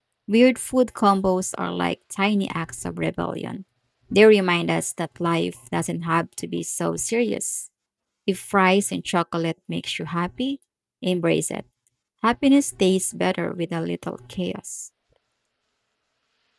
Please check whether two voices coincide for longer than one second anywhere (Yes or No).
No